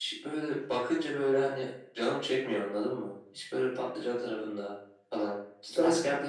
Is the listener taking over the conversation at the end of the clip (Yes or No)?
No